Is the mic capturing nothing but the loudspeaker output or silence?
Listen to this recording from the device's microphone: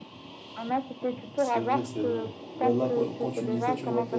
No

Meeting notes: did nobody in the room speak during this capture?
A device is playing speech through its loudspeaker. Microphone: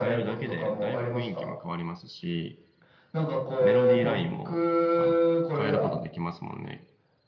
No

